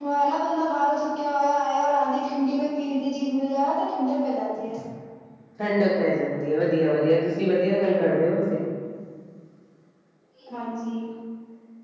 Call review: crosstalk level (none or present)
none